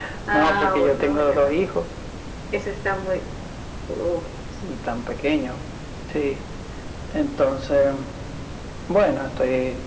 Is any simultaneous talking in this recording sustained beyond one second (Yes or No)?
Yes